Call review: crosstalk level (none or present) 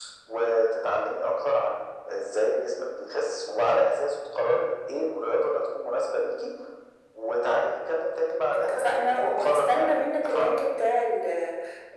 present